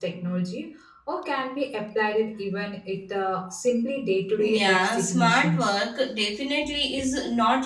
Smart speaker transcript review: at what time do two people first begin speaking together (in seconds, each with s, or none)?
4.4 s